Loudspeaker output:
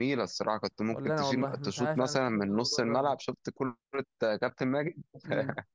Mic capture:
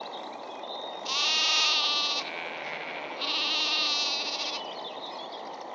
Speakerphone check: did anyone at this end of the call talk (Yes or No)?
No